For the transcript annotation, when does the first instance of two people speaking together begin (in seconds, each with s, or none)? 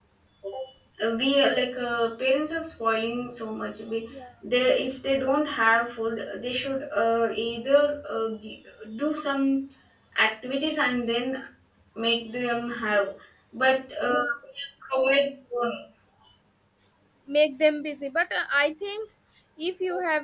none